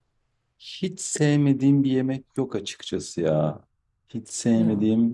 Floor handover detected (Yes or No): No